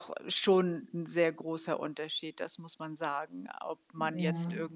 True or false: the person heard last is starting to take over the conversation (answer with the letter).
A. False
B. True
A